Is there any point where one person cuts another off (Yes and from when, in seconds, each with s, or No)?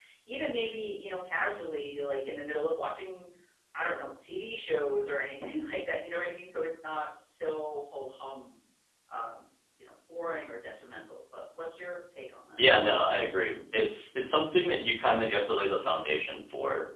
No